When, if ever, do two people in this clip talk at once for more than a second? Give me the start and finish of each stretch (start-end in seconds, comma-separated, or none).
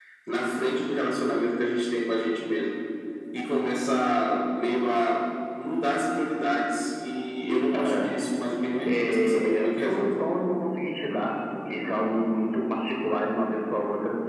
8.9-10.1